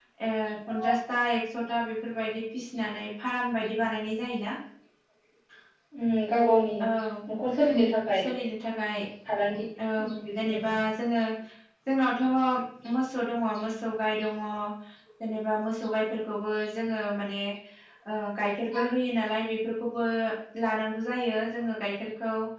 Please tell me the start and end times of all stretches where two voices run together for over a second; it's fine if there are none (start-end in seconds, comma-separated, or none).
none